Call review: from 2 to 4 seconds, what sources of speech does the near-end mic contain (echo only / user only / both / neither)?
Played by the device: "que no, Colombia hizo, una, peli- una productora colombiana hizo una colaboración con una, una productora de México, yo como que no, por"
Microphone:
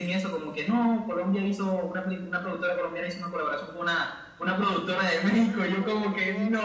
echo only